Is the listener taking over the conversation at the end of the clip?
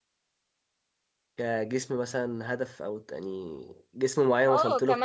Yes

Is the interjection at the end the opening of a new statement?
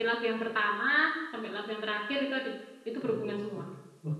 Yes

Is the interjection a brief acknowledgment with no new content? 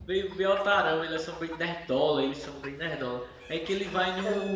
Yes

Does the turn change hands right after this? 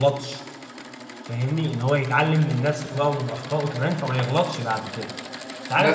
No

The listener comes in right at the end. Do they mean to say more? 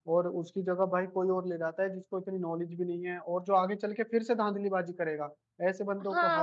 Yes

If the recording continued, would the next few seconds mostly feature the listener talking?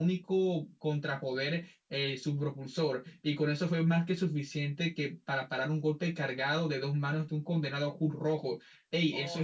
Yes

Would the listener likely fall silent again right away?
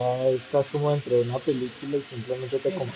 Yes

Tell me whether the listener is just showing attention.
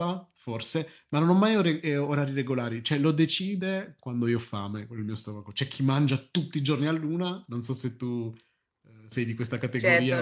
No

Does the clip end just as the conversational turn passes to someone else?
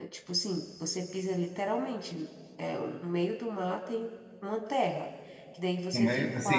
Yes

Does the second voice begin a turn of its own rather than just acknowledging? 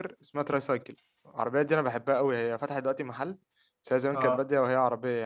No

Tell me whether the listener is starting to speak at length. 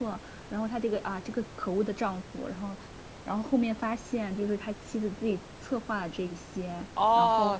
Yes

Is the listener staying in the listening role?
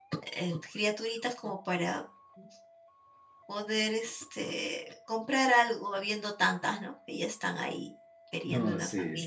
No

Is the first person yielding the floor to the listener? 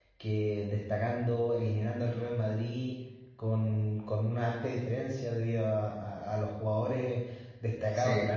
No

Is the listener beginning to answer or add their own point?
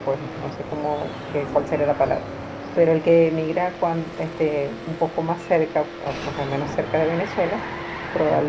No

